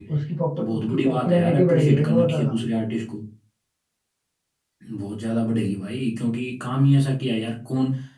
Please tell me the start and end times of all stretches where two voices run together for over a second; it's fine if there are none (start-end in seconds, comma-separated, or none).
0.6-2.6